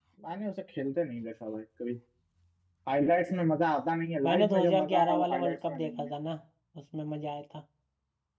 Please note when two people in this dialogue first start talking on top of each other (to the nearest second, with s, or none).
4 s